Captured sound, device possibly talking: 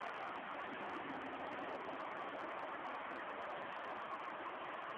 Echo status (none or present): none